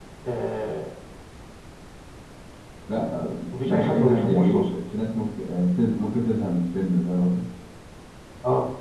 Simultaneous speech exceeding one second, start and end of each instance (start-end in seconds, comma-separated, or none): 3.5-4.7